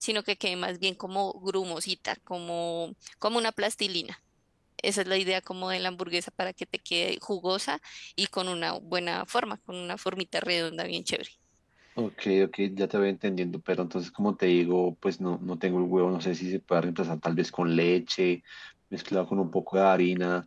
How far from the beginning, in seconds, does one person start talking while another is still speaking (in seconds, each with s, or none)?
none